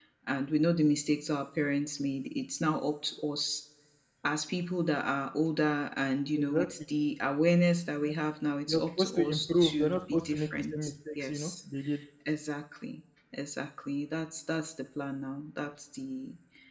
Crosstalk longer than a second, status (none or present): present